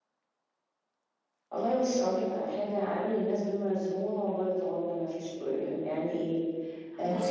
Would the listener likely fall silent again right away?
No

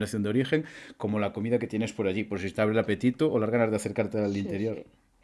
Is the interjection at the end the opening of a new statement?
Yes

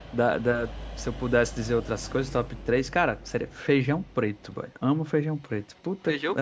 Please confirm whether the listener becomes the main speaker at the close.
Yes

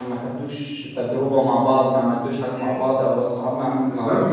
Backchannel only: No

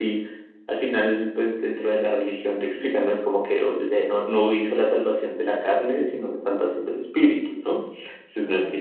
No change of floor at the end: No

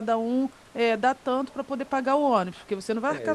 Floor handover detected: Yes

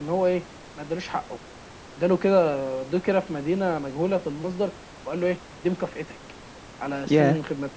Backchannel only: Yes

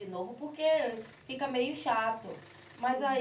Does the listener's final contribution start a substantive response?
No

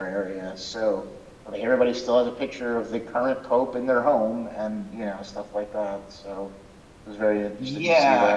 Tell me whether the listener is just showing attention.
No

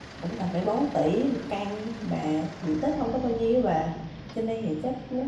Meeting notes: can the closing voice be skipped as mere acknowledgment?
Yes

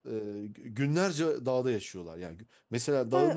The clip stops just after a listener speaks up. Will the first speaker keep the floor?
No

